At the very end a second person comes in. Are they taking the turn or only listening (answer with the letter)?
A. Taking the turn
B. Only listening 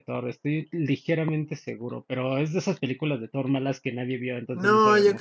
A